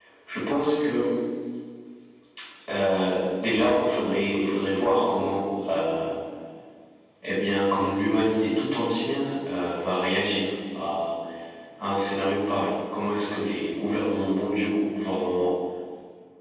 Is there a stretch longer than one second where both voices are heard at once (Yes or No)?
No